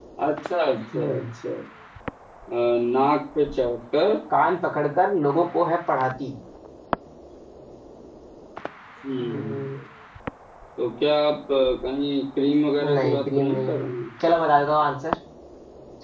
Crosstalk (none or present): present